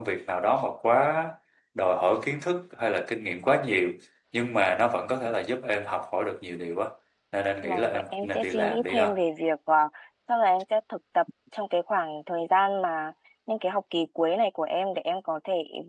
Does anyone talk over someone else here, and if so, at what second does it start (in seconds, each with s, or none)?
7.6 s